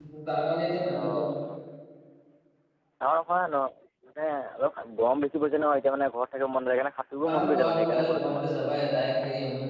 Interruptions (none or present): present